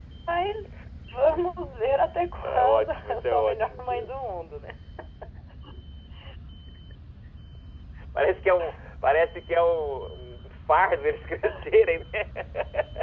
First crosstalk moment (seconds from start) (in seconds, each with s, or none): 2.4 s